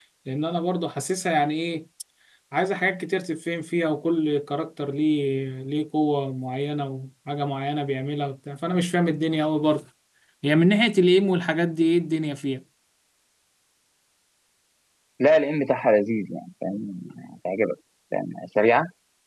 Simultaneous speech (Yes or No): No